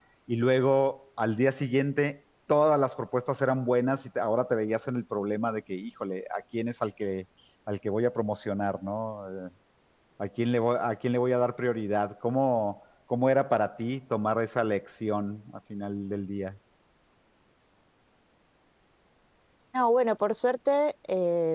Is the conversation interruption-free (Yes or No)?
Yes